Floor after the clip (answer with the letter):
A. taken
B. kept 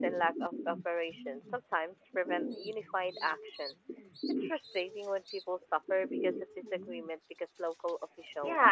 A